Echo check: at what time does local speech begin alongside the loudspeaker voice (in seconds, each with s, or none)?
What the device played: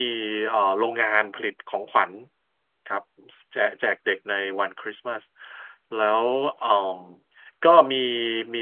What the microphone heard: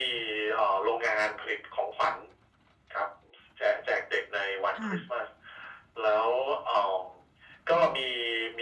4.8 s